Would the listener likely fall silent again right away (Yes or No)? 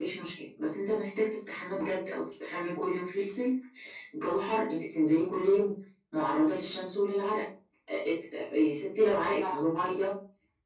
Yes